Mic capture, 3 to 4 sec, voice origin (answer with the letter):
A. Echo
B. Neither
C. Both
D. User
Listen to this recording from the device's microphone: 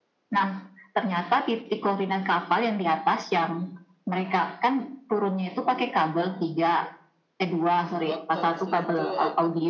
A